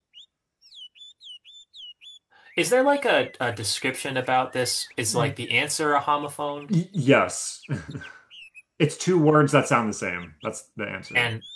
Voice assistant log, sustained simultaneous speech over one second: none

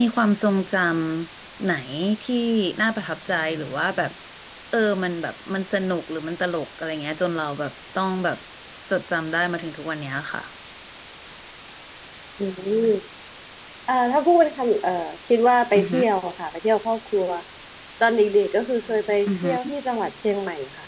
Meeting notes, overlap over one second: none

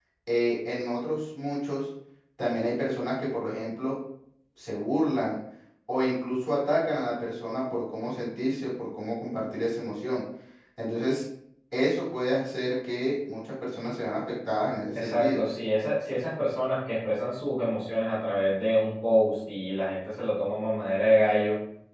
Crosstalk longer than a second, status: none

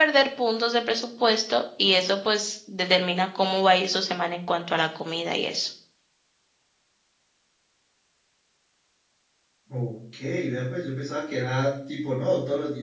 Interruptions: none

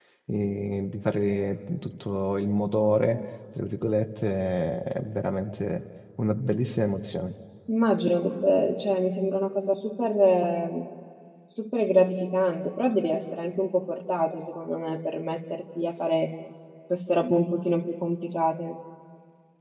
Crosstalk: none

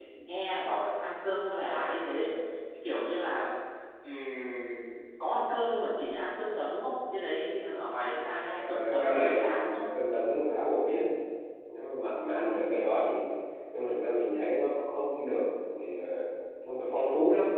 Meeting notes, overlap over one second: present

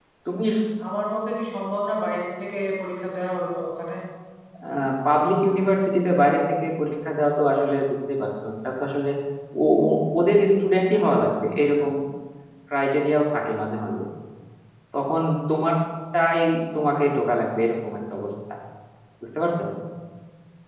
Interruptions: none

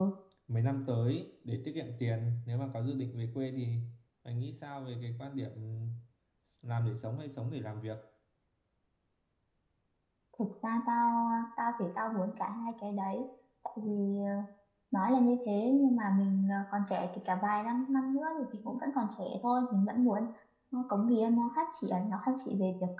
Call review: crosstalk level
none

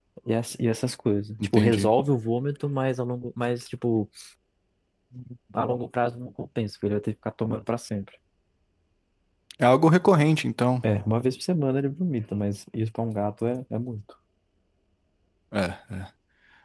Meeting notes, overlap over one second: none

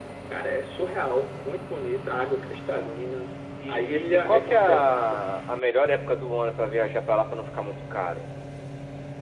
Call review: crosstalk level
present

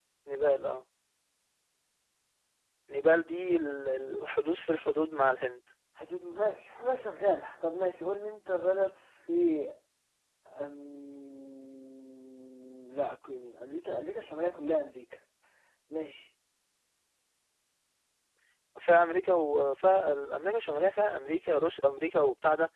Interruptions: none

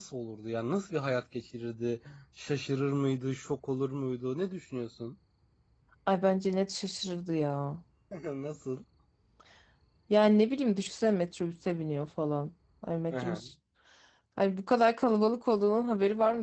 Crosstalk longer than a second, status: none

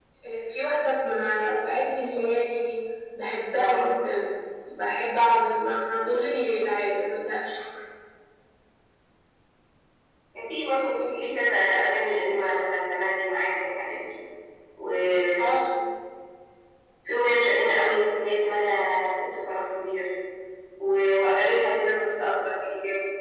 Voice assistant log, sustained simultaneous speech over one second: none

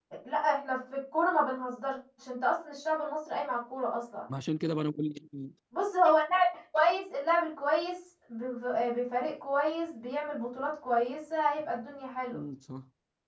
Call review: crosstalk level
none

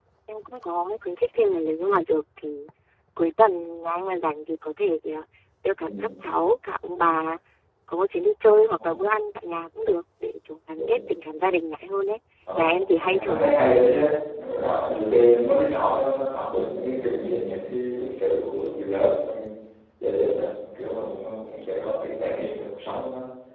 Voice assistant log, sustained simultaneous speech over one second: present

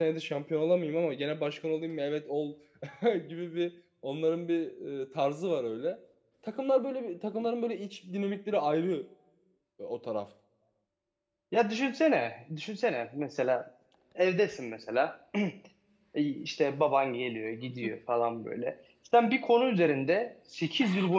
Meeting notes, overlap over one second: none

